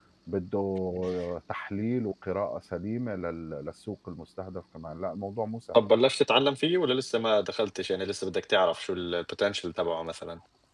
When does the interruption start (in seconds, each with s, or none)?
none